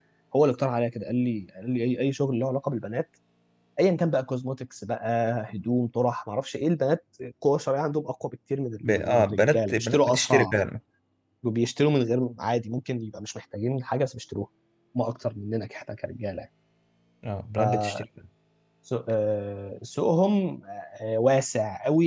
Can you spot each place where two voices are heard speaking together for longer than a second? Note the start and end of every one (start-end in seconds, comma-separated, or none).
8.8-10.5